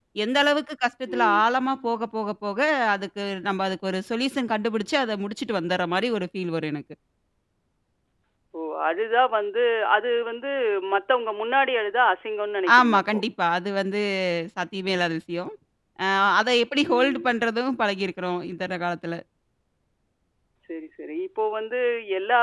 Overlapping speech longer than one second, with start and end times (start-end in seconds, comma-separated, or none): none